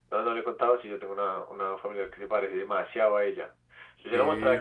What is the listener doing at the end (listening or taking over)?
listening